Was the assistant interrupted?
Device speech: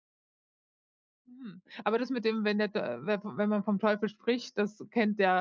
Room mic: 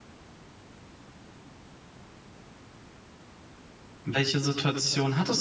Yes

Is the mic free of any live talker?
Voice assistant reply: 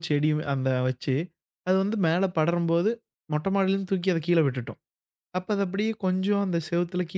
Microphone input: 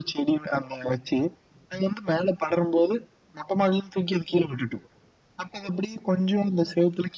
Yes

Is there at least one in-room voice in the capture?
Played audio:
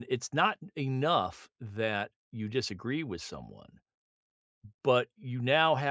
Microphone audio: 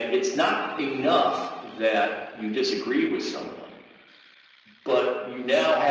No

